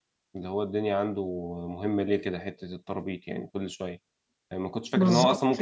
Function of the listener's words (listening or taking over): listening